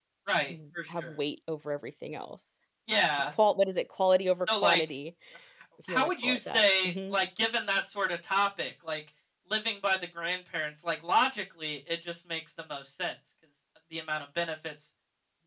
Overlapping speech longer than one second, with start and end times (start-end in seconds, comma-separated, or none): 5.9-7.2